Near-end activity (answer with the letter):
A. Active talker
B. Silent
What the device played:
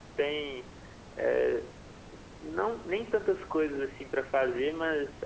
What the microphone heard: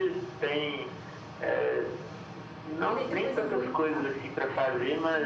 A